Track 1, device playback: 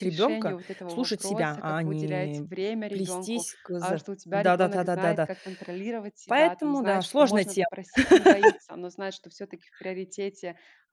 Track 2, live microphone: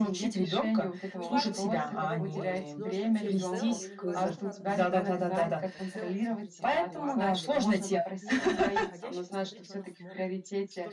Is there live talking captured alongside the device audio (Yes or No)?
Yes